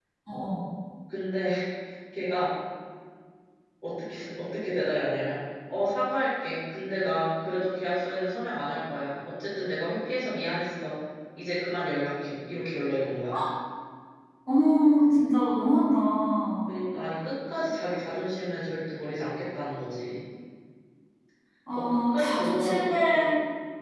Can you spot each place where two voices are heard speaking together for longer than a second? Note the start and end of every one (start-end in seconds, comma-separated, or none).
21.8-23.3